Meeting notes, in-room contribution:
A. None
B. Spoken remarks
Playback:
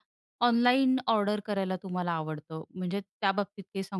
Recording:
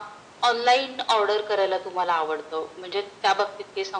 A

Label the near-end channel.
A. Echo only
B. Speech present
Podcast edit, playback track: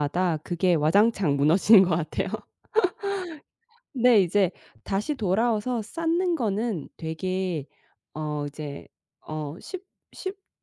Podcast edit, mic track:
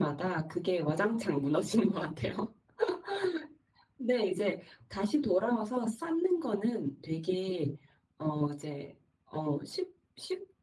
A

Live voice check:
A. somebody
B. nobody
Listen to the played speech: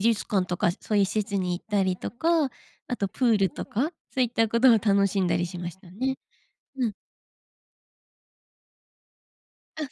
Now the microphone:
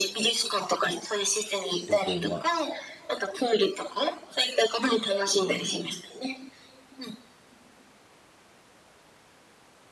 A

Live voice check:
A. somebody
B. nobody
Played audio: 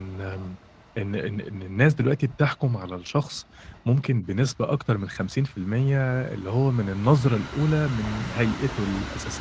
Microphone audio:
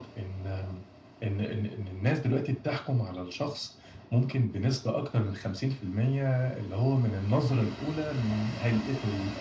B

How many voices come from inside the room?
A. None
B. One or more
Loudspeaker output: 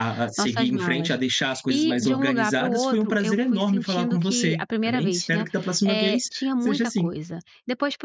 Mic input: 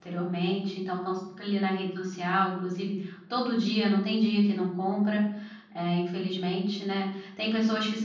B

